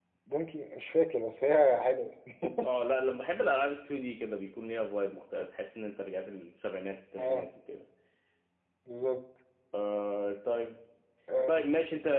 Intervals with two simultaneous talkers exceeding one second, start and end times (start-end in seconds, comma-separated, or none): none